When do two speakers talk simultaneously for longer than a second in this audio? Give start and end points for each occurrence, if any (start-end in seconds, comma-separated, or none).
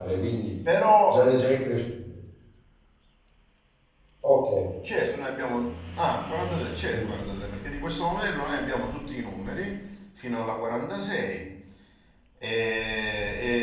none